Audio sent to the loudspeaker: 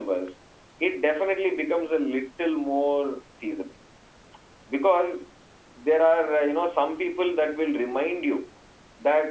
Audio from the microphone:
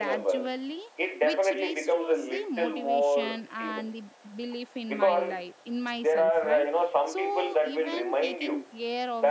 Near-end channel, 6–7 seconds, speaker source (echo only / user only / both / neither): both